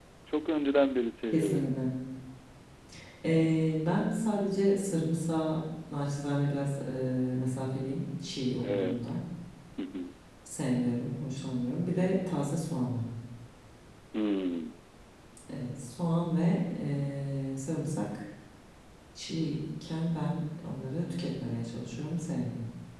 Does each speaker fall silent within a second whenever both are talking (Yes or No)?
Yes